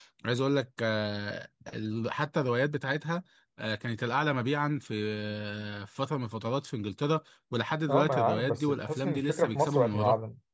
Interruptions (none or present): present